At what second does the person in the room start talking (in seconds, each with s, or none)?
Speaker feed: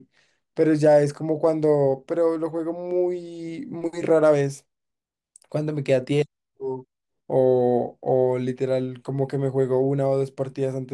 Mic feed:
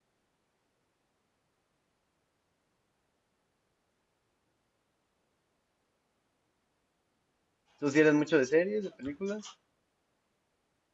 7.8 s